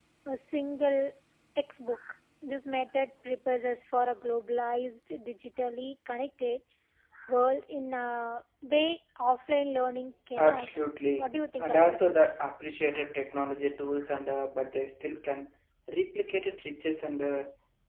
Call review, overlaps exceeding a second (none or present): present